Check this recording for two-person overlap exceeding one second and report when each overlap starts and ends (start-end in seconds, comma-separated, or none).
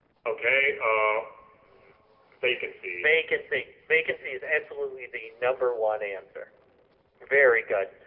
none